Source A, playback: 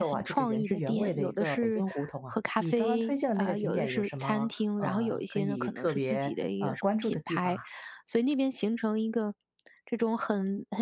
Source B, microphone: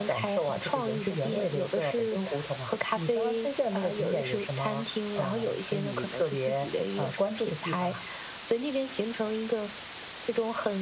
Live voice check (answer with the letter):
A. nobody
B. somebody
A